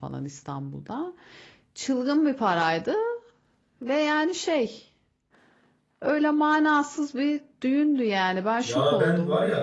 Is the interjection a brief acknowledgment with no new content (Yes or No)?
No